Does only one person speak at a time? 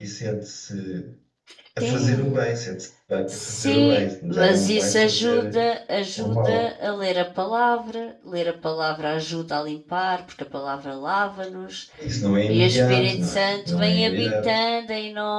No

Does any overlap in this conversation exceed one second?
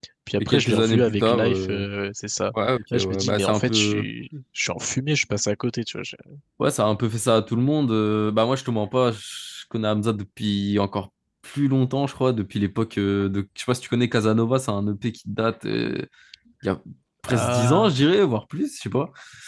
Yes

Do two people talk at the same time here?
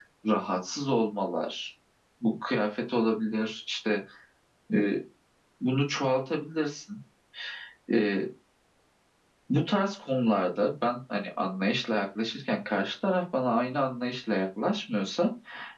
No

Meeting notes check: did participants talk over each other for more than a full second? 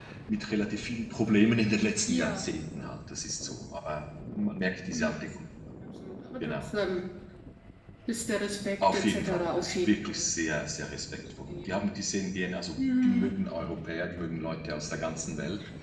Yes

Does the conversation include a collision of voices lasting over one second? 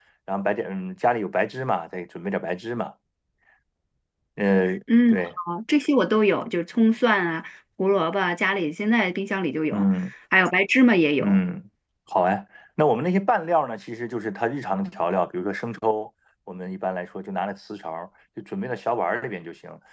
No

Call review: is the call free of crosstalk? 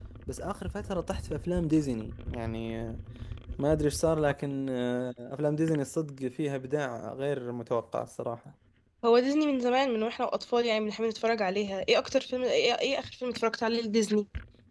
Yes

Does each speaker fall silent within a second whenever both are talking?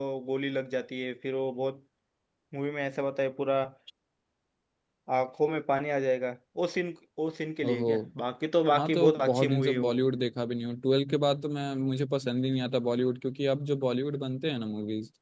No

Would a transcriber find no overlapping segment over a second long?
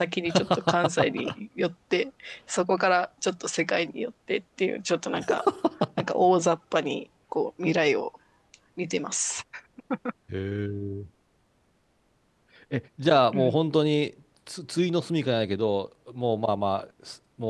Yes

